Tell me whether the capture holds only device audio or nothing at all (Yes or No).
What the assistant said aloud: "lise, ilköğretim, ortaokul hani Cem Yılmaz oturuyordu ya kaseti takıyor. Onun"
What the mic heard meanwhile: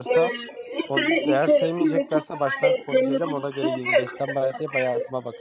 No